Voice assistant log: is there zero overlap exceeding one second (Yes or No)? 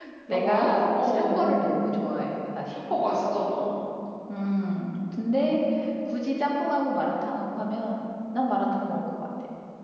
No